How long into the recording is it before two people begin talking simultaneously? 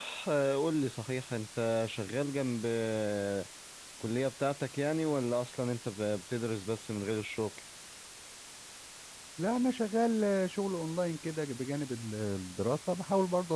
none

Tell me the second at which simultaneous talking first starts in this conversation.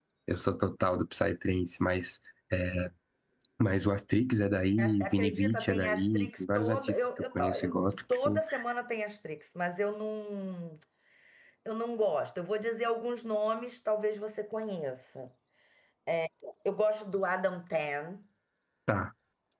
4.8 s

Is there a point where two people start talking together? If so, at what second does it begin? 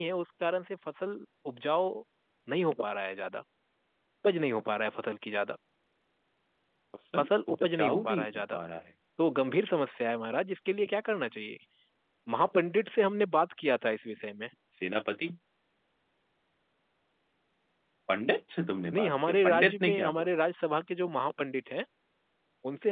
7.2 s

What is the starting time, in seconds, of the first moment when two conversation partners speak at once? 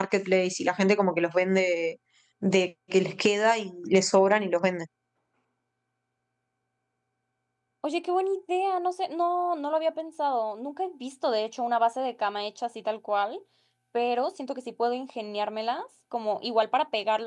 none

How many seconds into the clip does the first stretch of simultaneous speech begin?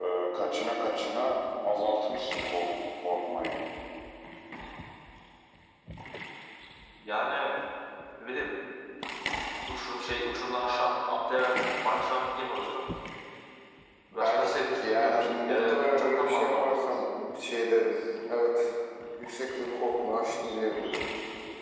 14.1 s

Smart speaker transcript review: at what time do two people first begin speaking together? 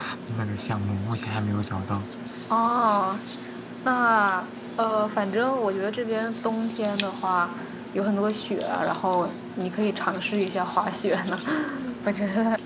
none

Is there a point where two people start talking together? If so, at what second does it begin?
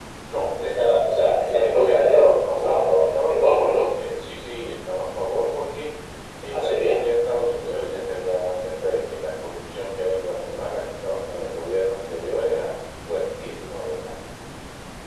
1.2 s

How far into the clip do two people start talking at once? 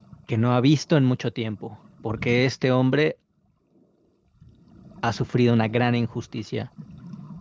none

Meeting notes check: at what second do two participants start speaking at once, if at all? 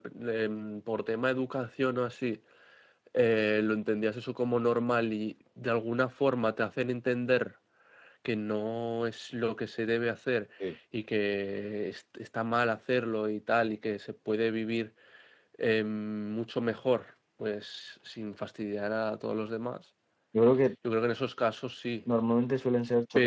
none

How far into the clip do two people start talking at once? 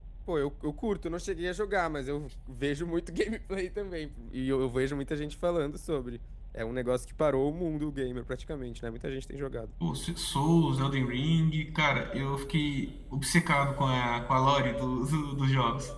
none

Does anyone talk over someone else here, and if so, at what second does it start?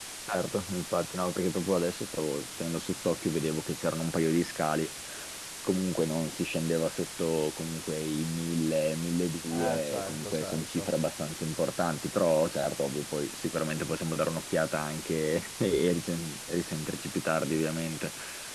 9.5 s

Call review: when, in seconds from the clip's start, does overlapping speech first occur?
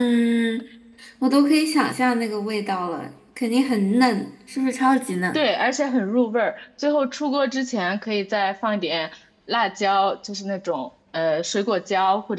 none

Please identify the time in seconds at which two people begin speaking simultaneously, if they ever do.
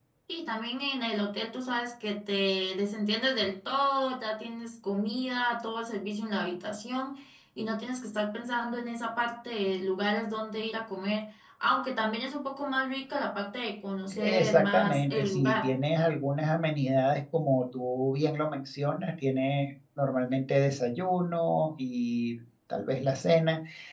14.1 s

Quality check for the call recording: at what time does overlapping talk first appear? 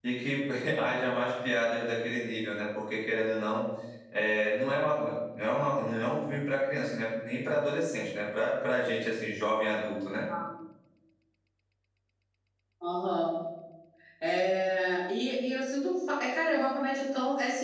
none

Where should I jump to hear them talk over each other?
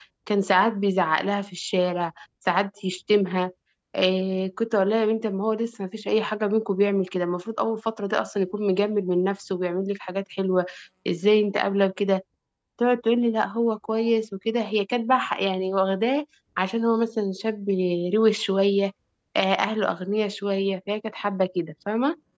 none

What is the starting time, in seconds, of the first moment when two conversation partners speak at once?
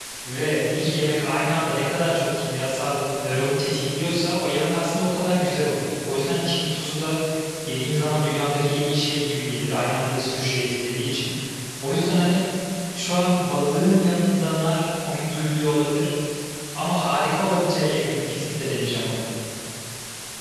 none

